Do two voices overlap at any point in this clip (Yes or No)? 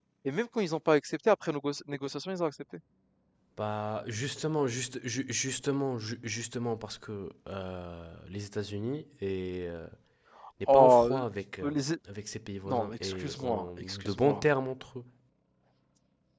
Yes